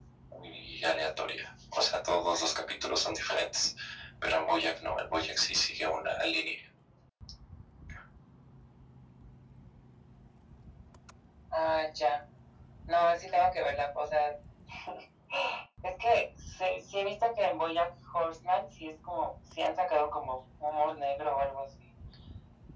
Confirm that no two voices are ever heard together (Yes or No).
Yes